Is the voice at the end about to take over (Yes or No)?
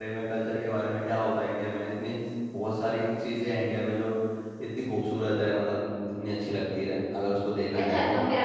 Yes